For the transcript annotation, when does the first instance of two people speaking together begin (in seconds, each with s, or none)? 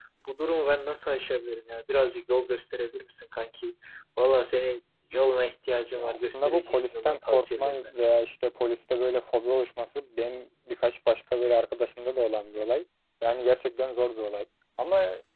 6.0 s